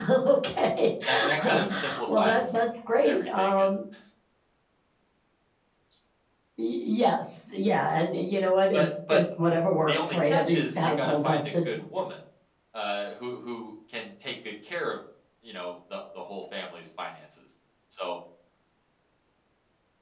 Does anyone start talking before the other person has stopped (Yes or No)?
Yes